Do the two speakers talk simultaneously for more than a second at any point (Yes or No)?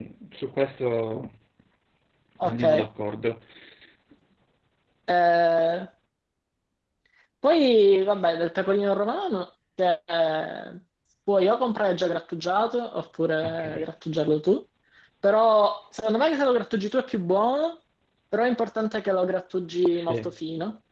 No